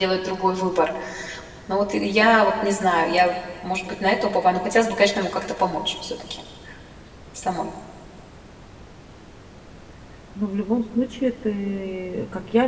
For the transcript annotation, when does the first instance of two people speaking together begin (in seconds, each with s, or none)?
none